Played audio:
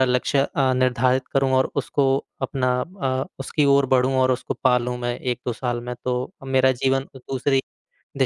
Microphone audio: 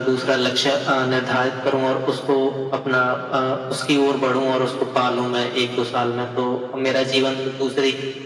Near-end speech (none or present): none